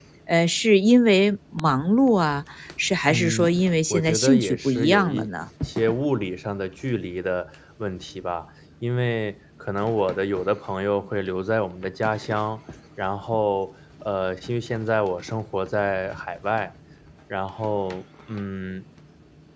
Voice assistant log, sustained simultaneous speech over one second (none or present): present